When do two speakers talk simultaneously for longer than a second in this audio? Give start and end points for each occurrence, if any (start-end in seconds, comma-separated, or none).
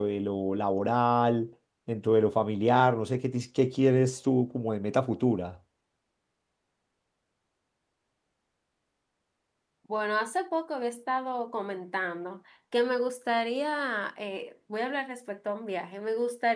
none